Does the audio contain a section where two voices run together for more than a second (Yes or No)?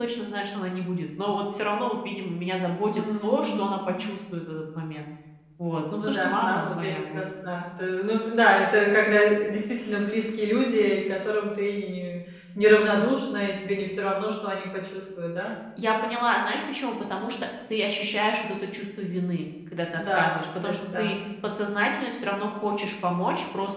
Yes